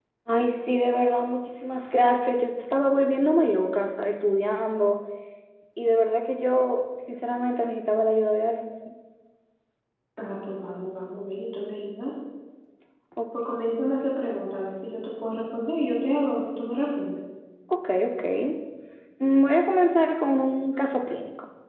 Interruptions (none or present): none